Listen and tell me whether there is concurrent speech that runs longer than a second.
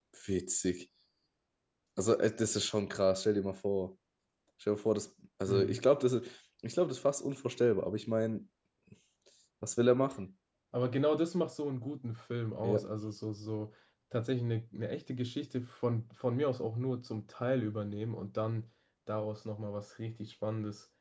No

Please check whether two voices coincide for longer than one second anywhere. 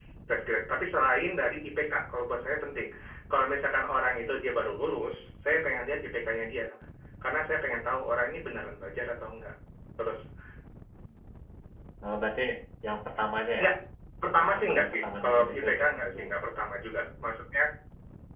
Yes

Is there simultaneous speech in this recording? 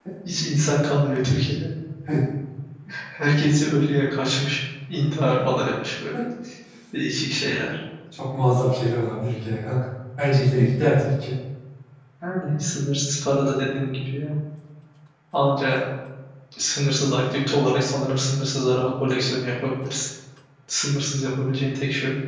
No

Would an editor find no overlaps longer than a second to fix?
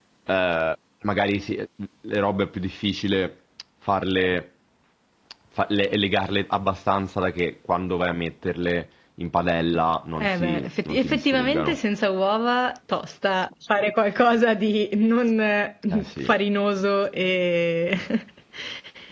No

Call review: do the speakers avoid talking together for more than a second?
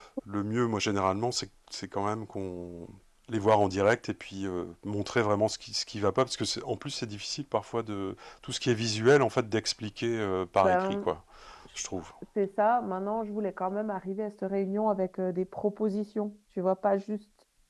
Yes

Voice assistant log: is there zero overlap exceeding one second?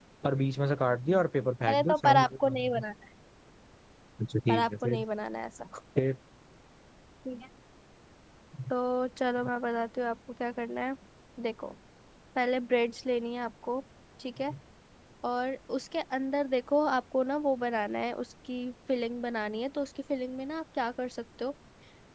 No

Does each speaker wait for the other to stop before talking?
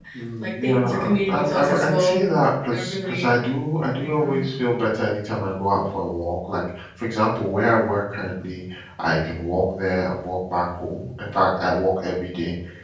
No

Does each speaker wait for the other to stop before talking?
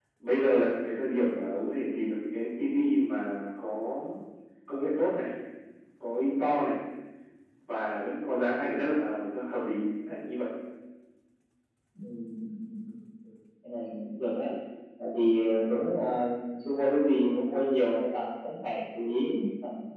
Yes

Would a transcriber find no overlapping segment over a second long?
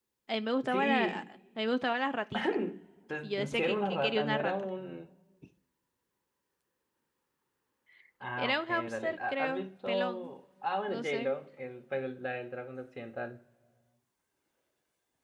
No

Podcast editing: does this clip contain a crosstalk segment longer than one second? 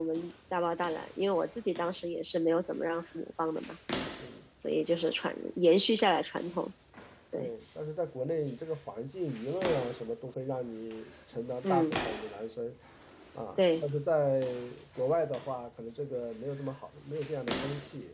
No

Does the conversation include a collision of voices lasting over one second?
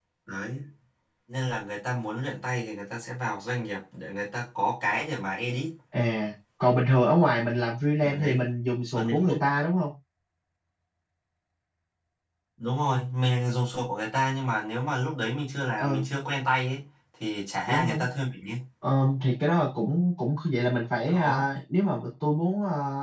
No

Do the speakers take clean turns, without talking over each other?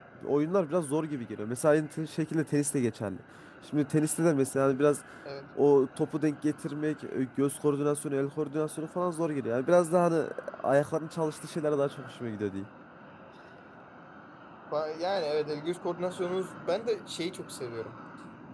Yes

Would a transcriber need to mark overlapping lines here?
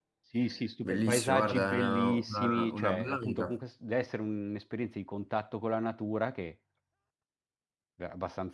Yes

